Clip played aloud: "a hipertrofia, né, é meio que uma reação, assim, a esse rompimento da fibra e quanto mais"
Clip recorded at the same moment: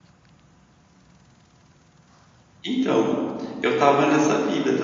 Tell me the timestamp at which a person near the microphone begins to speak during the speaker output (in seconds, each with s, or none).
2.6 s